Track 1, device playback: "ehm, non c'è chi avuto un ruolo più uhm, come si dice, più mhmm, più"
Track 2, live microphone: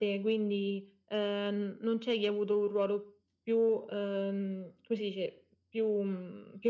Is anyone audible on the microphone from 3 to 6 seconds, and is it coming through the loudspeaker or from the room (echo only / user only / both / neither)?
echo only